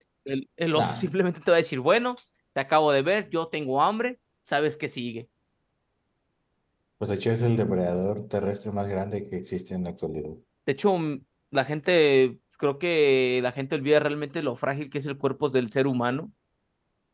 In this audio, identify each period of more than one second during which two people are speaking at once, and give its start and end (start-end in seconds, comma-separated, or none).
none